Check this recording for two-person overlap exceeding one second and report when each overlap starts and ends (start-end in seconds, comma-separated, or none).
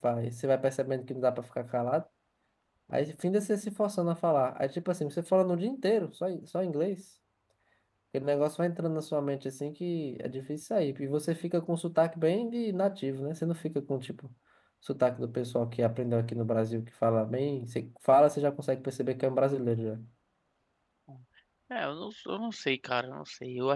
none